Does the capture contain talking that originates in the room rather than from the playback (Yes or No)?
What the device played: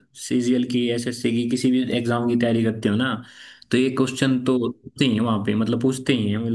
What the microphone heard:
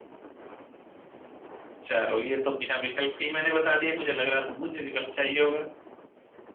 Yes